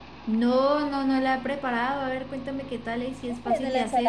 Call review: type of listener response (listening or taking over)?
taking over